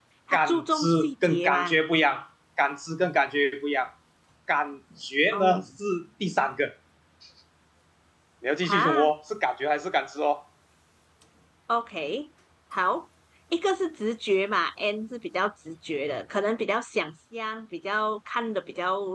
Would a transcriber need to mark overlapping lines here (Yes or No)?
Yes